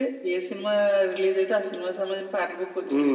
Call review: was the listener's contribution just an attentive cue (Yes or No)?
No